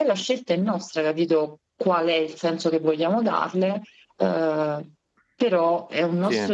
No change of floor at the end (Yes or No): Yes